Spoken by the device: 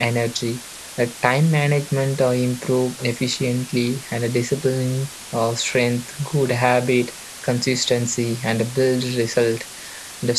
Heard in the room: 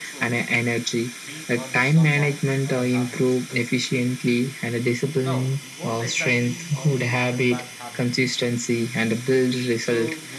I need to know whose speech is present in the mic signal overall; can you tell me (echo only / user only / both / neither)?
both